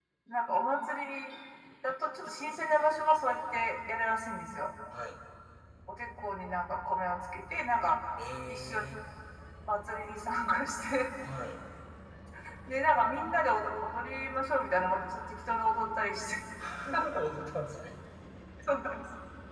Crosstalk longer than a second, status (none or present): none